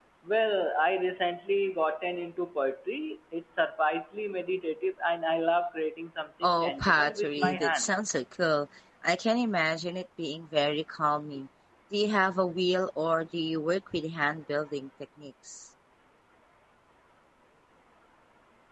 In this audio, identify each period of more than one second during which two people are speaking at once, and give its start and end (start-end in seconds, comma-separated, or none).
6.4-7.9